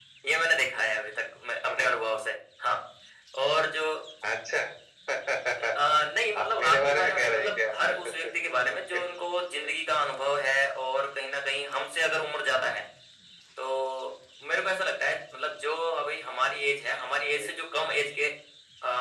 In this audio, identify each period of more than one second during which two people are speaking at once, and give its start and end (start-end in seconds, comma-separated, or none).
6.4-8.3